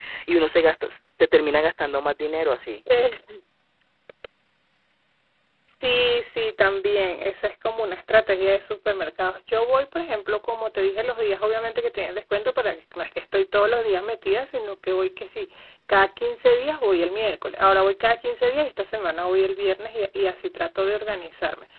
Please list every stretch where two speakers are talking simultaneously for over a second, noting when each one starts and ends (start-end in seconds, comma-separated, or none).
none